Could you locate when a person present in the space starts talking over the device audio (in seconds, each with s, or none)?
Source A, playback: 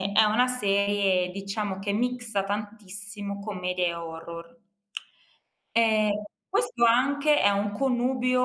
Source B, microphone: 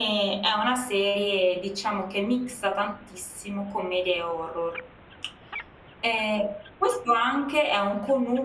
none